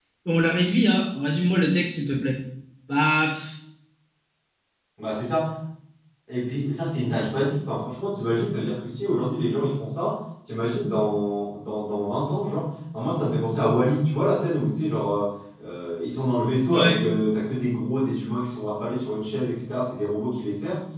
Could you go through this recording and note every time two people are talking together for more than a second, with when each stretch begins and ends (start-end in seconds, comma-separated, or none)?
none